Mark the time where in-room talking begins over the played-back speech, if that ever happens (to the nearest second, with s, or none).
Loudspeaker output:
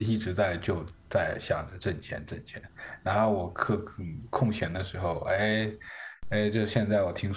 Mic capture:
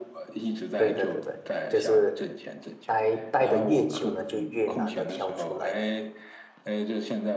1 s